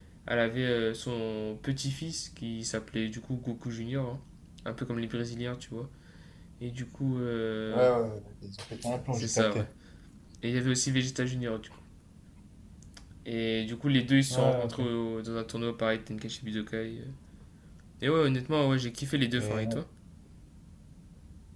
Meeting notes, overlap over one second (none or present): none